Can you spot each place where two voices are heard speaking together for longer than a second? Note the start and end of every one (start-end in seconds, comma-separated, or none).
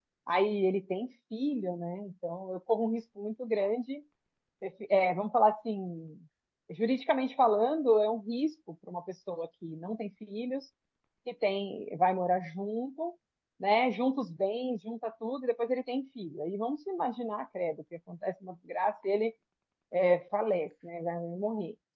none